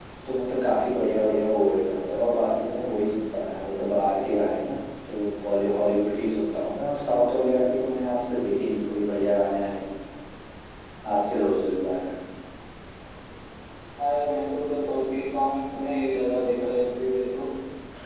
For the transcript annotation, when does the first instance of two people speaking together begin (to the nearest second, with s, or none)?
none